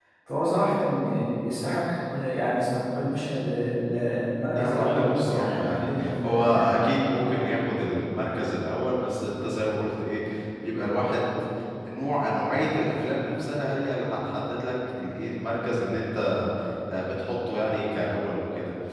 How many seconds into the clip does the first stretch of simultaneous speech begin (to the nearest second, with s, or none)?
5 s